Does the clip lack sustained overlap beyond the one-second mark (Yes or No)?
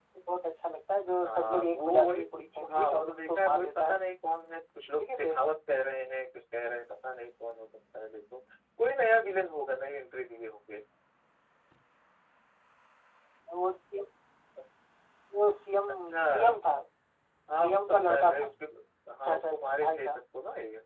No